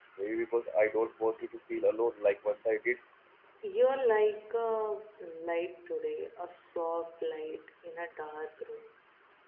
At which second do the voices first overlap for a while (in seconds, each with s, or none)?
none